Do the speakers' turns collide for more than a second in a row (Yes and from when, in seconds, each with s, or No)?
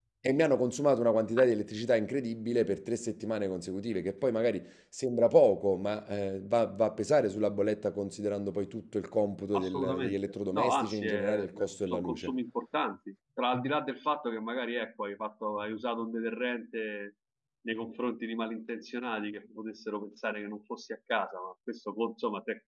Yes, from 9.5 s